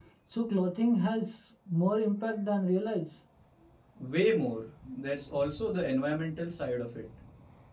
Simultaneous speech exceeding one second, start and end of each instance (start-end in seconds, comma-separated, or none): none